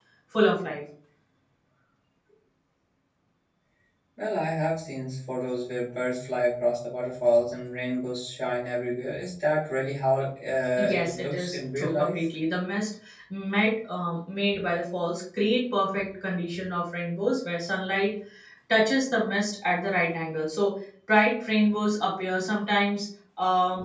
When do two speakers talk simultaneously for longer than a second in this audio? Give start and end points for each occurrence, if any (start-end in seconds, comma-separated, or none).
10.8-12.2